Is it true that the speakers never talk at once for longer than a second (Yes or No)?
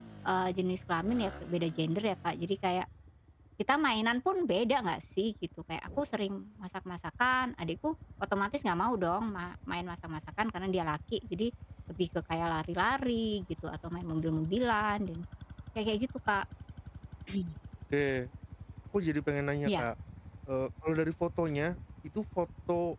Yes